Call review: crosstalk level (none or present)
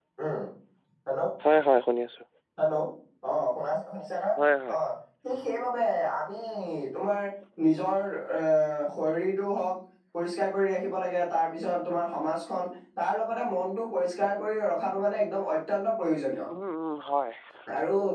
none